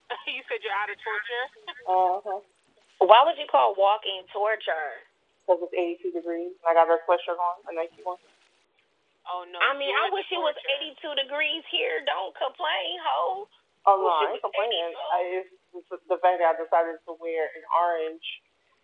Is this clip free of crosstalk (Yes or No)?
No